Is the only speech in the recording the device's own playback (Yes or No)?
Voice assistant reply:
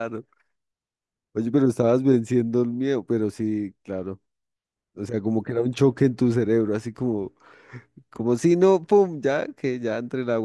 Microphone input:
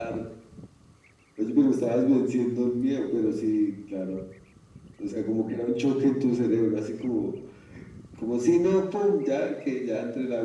Yes